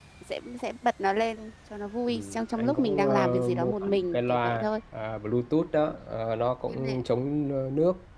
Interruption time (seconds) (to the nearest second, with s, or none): 2 s